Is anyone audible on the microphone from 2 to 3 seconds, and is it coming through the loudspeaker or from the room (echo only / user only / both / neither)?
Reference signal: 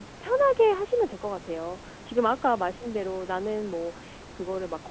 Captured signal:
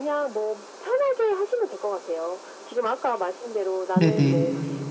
echo only